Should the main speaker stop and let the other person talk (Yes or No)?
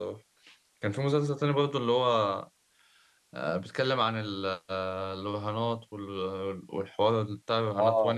Yes